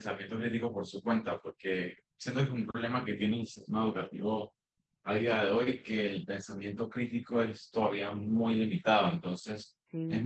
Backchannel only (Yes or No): Yes